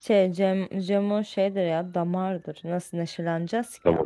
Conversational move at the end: taking over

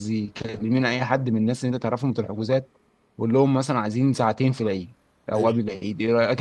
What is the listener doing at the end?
listening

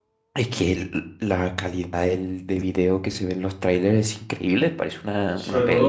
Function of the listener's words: taking over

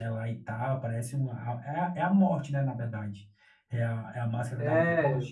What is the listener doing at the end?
taking over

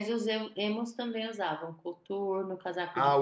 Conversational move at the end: taking over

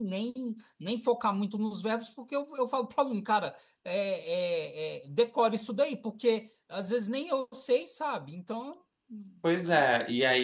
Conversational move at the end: taking over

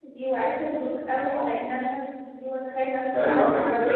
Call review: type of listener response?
taking over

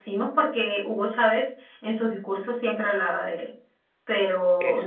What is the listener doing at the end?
taking over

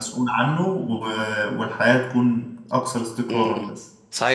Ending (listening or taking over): taking over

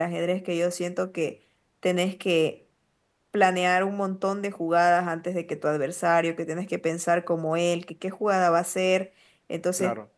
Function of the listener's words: listening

